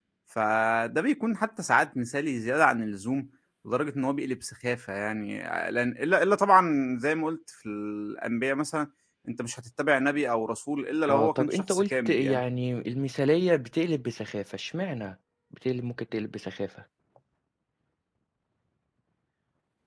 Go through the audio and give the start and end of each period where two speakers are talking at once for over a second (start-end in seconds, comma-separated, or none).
11.1-12.4